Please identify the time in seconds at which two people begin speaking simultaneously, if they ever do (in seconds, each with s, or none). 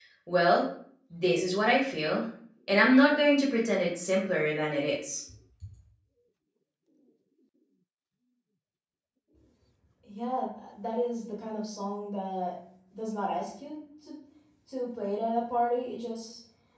none